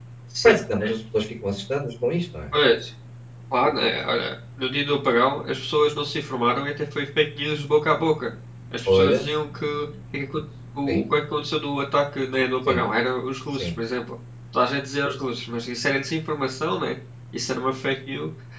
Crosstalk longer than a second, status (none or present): none